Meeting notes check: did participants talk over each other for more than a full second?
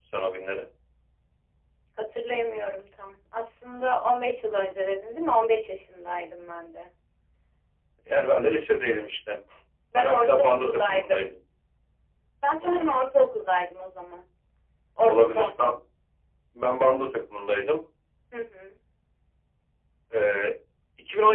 Yes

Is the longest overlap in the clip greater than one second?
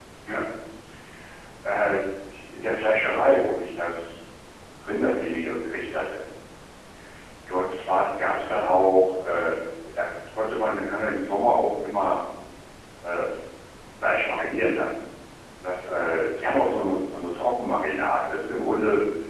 No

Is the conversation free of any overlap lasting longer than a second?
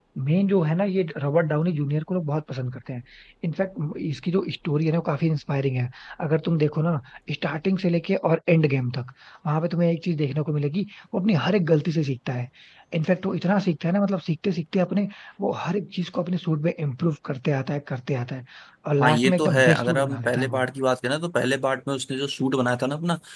No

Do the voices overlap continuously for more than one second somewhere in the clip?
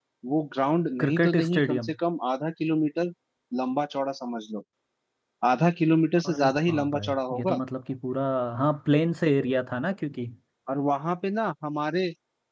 Yes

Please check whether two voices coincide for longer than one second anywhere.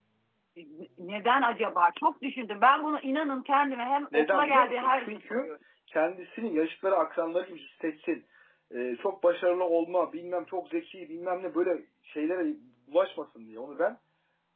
Yes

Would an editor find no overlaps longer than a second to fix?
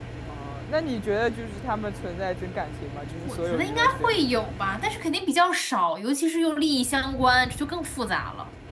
No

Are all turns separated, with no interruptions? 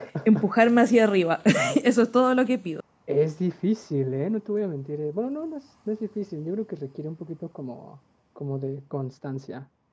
Yes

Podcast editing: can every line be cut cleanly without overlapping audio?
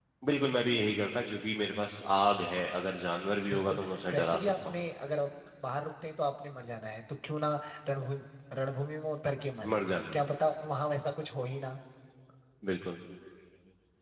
No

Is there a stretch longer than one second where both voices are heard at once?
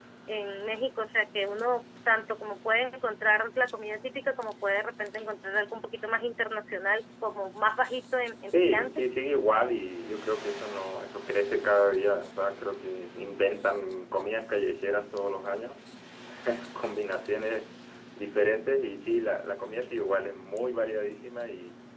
No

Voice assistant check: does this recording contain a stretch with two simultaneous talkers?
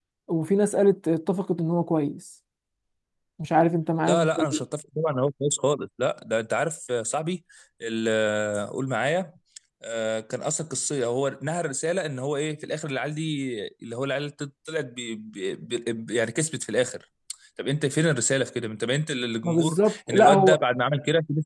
Yes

